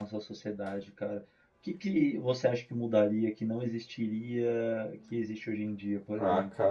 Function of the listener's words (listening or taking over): taking over